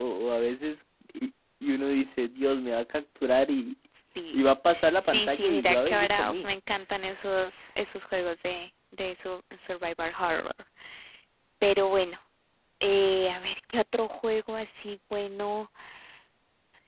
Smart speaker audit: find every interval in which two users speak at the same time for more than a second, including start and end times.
5.0-6.5

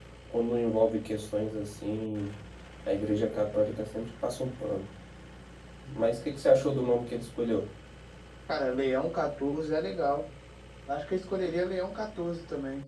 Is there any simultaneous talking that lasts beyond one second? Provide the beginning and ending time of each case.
none

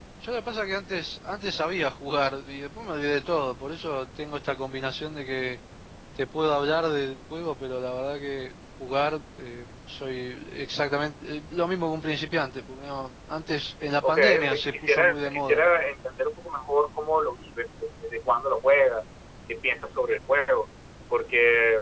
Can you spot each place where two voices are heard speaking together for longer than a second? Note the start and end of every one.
14.0-15.6

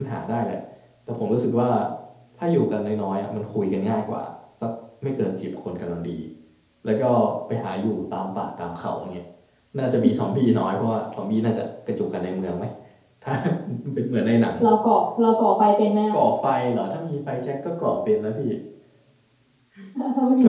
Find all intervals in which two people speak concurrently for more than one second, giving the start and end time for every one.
none

